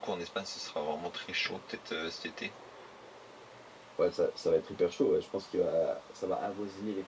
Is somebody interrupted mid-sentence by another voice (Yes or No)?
No